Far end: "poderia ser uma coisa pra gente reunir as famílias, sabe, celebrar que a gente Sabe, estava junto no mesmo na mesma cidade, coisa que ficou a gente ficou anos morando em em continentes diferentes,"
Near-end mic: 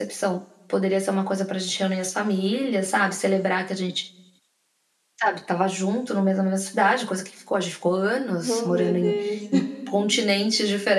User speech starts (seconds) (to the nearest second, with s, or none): 8 s